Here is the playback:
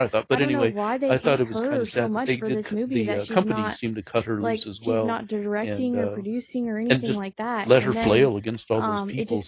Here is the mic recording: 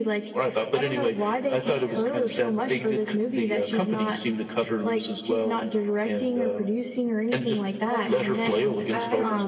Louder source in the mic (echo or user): echo